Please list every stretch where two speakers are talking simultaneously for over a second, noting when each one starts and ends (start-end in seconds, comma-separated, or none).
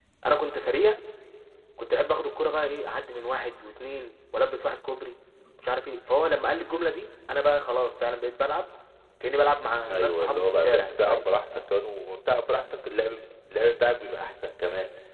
9.9-11.2